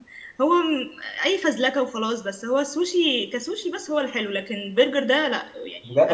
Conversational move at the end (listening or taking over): taking over